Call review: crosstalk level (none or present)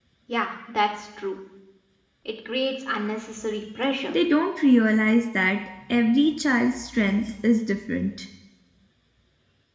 none